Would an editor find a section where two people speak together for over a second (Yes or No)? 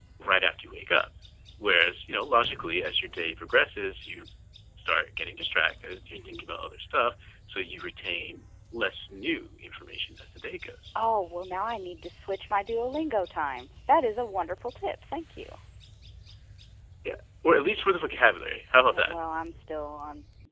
No